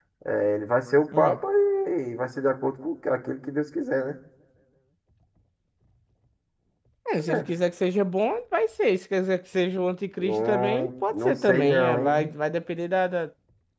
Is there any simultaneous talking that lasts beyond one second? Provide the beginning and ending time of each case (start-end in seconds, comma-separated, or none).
10.2-12.3